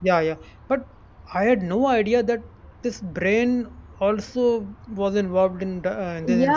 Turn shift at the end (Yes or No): Yes